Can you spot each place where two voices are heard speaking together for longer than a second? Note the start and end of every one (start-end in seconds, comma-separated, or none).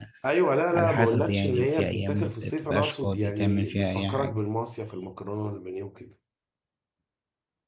0.7-4.5